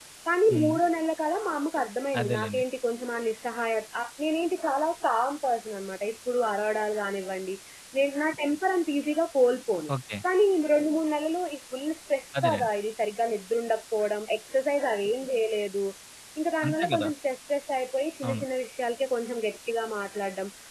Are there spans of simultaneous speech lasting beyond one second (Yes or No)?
No